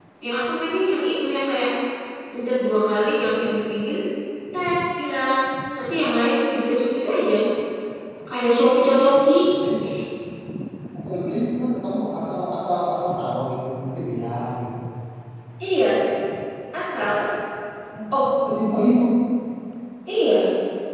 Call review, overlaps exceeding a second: none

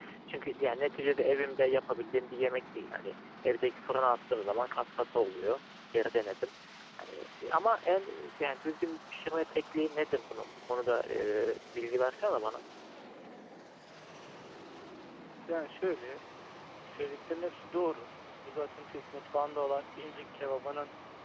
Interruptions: none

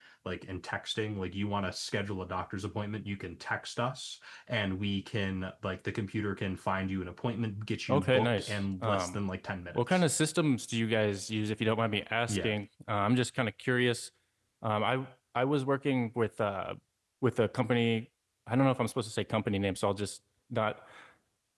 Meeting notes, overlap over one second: present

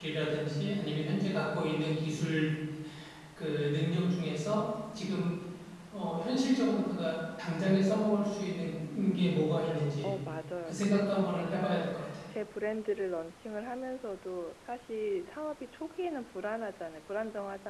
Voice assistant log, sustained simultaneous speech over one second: present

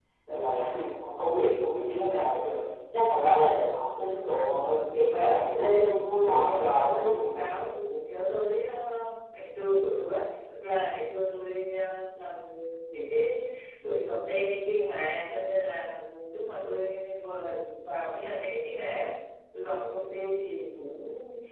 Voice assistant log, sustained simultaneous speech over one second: present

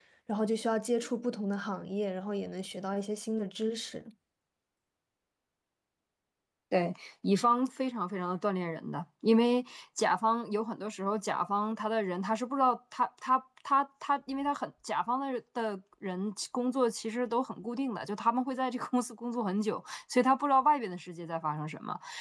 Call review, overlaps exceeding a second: none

